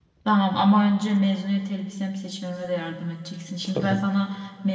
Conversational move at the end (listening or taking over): listening